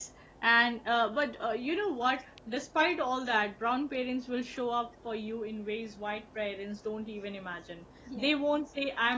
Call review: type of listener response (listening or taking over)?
listening